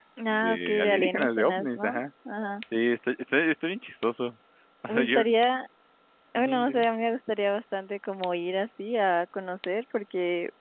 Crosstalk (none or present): present